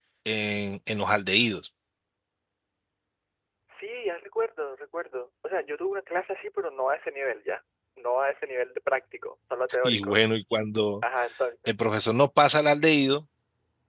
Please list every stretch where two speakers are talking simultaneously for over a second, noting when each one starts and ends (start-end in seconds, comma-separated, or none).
none